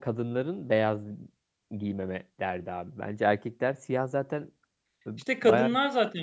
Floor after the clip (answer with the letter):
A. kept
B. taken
B